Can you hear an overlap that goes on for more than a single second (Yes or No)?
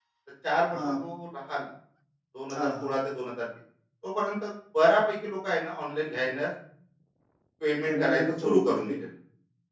Yes